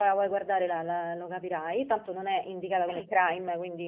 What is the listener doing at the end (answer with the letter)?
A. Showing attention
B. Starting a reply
A